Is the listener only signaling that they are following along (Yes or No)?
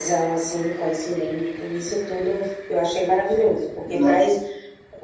Yes